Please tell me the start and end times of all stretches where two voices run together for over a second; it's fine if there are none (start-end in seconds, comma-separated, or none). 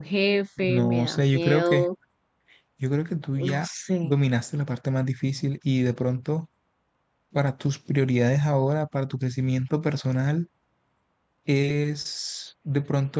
0.6-1.8